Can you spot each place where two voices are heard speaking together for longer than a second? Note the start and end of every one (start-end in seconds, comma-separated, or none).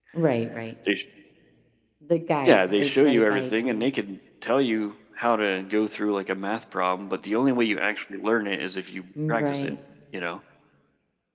2.4-3.9